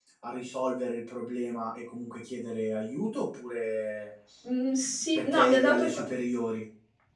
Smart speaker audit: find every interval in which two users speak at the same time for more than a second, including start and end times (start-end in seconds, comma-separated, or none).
4.8-6.0